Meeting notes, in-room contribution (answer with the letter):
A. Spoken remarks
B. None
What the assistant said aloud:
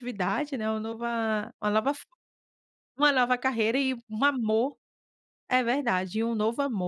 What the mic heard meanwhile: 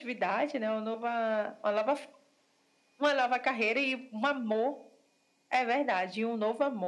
B